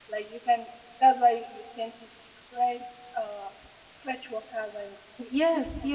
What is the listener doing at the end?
taking over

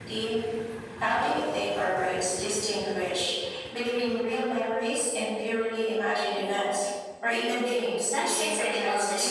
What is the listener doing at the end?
taking over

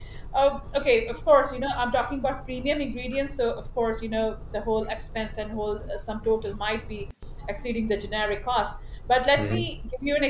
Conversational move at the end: listening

